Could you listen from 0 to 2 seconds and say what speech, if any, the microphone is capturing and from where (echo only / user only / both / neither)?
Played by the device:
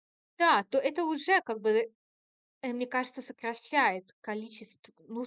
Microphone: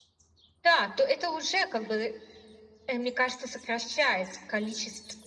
echo only